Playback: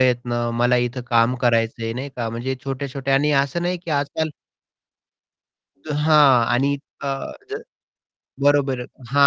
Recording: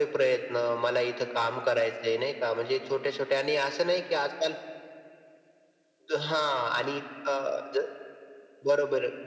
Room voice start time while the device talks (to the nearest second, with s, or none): none